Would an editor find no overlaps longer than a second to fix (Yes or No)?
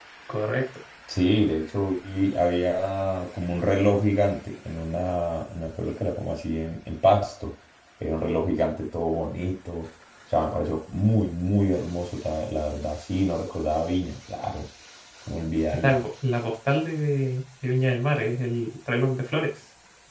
Yes